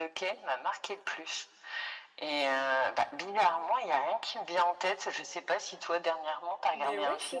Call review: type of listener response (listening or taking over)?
taking over